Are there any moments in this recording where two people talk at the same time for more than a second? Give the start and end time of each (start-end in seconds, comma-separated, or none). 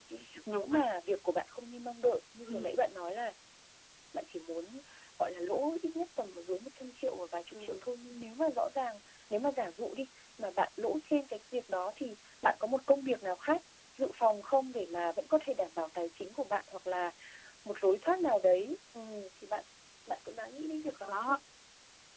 none